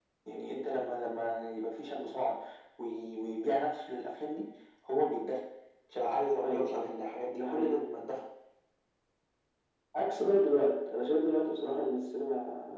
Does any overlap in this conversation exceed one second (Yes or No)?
No